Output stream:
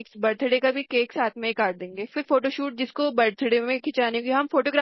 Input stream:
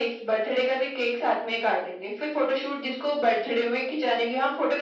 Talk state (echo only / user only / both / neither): echo only